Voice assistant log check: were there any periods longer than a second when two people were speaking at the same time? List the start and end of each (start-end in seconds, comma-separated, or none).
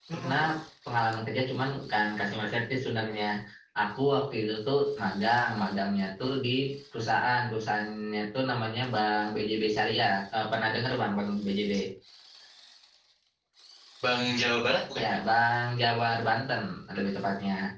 none